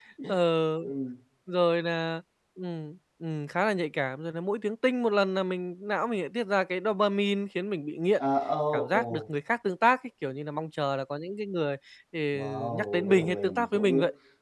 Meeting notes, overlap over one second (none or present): present